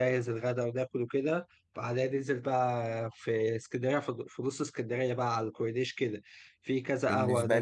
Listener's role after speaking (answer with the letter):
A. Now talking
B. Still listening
B